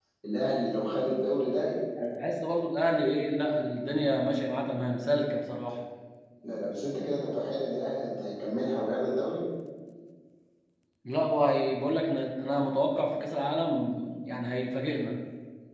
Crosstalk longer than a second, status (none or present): none